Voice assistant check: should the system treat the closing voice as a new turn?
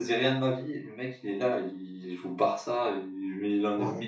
No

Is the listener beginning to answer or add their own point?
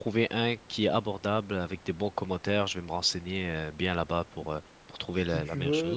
Yes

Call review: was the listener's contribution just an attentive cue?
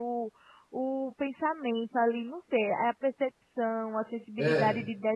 Yes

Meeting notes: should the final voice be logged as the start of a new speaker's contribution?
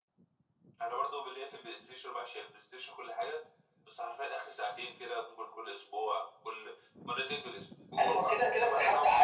Yes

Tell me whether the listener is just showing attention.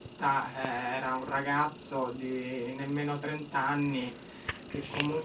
Yes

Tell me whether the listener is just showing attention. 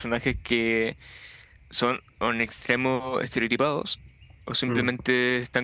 Yes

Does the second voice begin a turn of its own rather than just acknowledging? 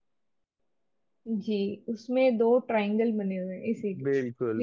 Yes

